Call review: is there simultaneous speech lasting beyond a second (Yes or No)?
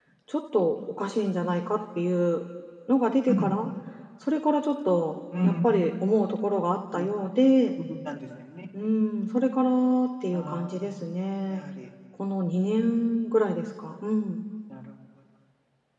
No